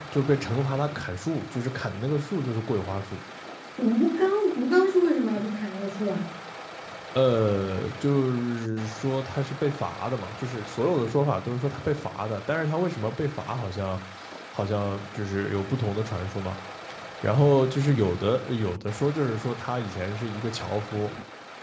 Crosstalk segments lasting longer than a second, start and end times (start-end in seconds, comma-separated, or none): none